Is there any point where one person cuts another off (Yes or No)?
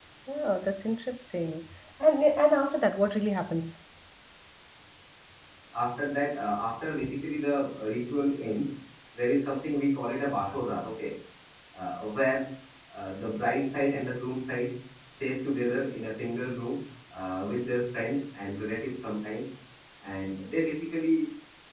No